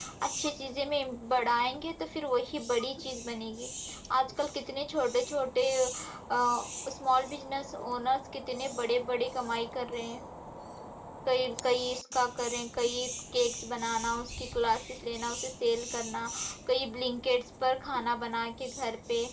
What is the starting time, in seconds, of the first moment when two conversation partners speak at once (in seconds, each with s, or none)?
none